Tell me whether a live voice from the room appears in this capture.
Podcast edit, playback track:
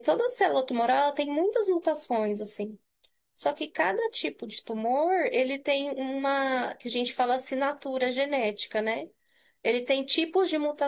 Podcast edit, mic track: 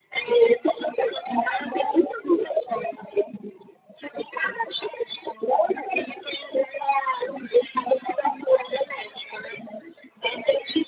No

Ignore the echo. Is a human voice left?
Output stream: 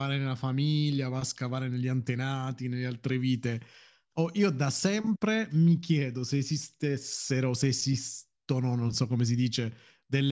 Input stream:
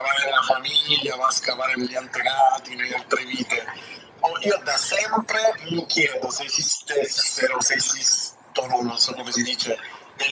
No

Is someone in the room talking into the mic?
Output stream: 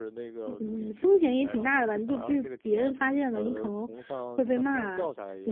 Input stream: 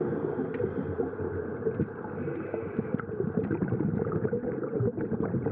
No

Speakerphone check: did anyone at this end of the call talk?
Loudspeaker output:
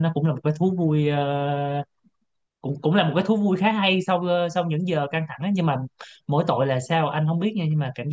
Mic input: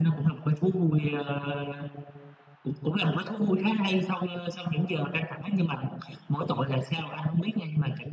No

